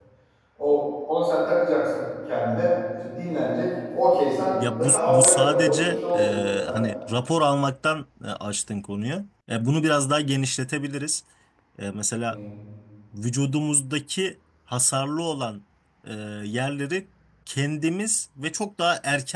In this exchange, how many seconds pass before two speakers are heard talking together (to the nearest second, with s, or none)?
5 s